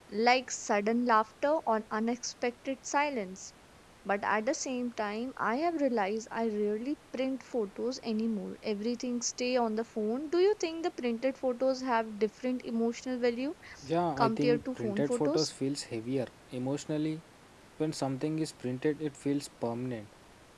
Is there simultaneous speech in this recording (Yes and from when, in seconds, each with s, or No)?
Yes, from 14.2 s